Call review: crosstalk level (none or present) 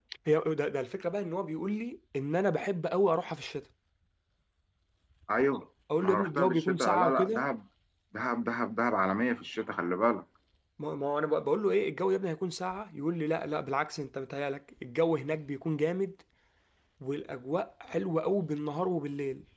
present